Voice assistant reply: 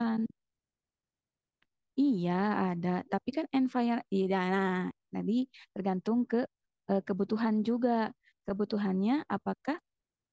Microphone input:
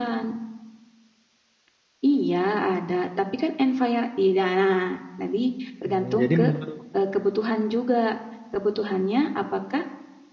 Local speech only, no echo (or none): Hmm, jadi menurut